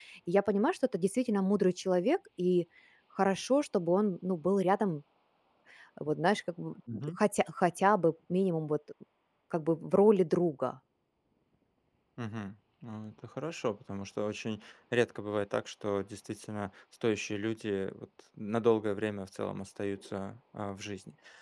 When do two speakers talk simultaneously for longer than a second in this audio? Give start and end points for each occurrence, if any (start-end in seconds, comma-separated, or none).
none